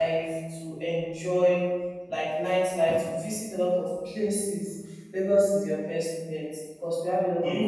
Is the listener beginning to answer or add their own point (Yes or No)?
No